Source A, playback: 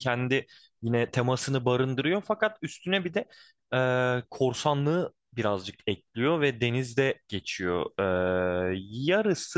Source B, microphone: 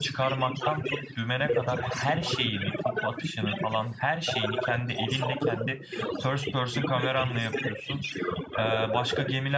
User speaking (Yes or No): Yes